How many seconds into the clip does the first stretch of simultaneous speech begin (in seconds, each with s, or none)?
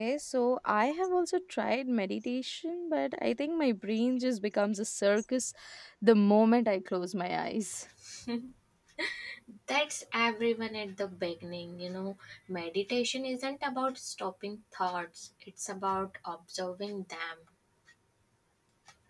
none